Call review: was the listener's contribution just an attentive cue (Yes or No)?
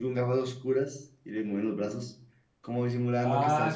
No